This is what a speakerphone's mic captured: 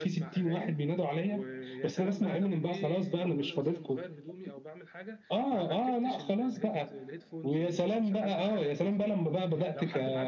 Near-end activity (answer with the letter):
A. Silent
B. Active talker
B